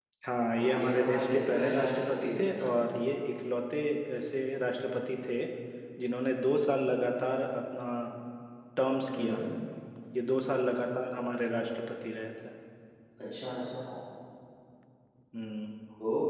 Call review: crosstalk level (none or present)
present